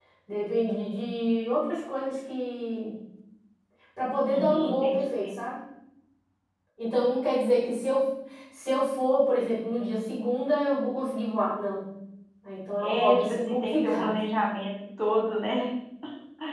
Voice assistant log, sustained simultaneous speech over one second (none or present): present